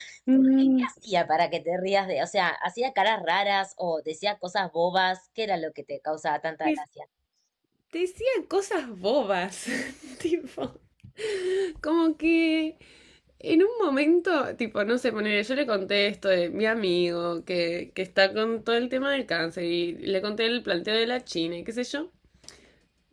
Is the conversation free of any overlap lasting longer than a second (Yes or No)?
Yes